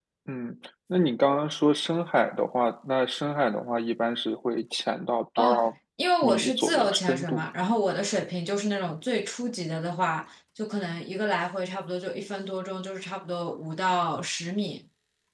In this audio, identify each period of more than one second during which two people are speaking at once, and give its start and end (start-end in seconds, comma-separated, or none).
6.2-7.4